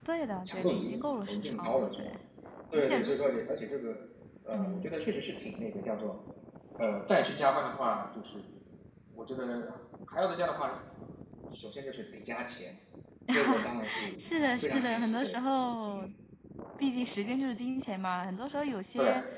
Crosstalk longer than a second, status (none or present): present